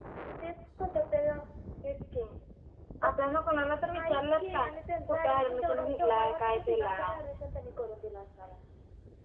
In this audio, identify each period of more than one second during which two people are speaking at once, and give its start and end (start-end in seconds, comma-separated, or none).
5.1-7.2